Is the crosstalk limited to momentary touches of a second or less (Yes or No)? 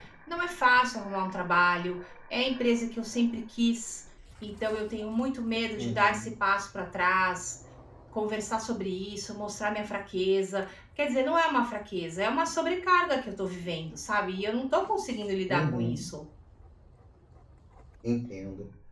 Yes